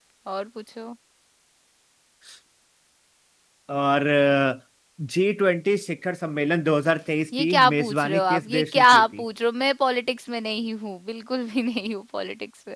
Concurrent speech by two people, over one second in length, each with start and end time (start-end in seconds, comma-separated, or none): 7.4-9.2